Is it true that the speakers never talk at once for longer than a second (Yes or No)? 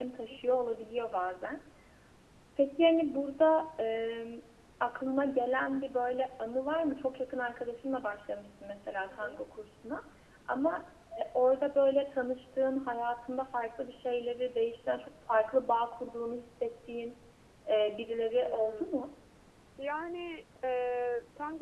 Yes